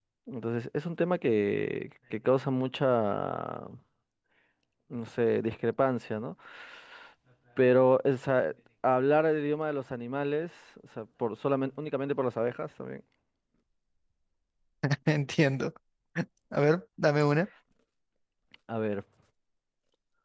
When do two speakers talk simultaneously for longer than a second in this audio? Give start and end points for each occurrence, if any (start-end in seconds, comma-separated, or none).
none